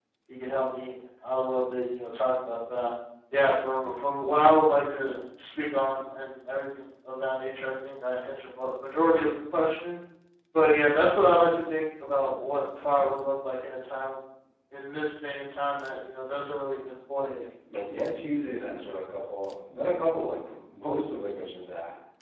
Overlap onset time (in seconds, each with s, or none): none